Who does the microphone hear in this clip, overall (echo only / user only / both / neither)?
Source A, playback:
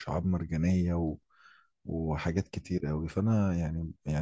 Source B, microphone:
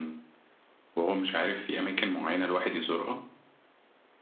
user only